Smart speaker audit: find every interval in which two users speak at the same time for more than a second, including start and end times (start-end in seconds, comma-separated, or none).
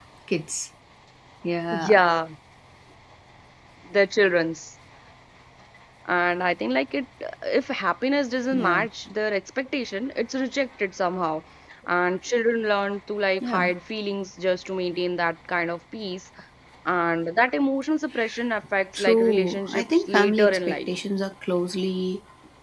18.9-20.9